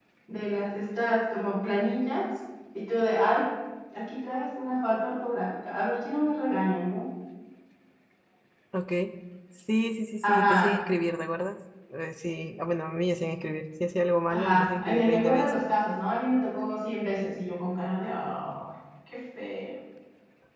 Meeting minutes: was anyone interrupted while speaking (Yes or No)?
Yes